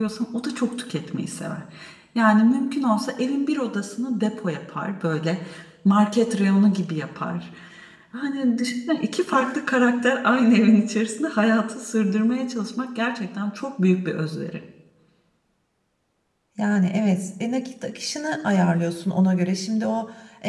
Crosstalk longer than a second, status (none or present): none